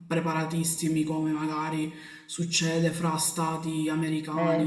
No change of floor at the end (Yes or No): No